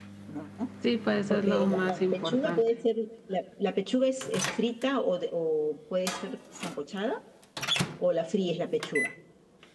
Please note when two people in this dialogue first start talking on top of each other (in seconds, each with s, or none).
1.3 s